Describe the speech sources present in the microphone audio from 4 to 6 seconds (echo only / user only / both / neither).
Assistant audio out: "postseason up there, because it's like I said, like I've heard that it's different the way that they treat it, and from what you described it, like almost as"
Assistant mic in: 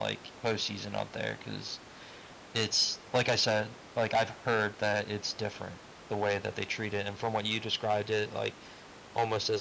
echo only